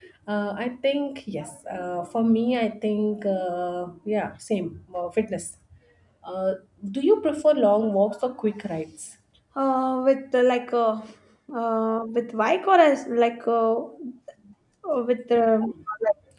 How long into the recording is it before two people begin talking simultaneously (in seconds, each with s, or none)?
none